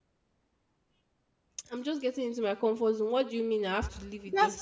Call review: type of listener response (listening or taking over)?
taking over